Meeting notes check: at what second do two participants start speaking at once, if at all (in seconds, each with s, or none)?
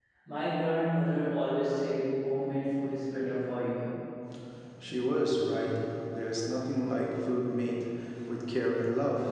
none